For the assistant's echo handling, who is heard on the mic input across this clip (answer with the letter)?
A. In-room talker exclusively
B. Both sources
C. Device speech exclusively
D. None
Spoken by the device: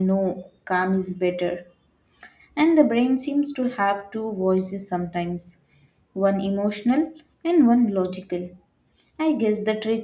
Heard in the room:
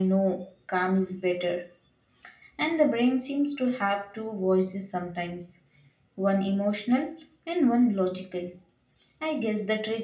C